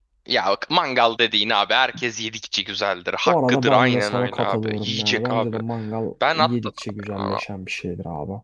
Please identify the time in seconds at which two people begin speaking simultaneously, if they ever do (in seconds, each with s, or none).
3.3 s